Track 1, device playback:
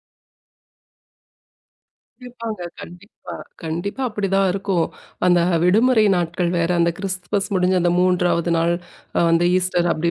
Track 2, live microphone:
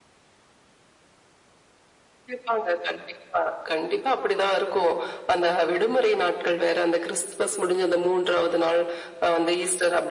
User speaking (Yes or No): No